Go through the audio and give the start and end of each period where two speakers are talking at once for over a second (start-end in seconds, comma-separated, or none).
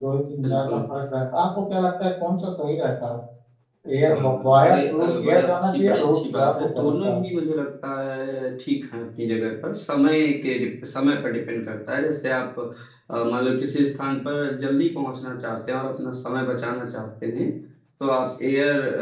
4.1-7.2